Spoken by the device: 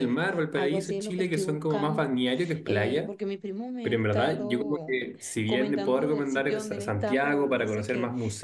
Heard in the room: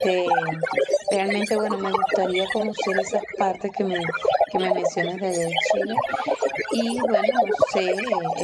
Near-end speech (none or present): present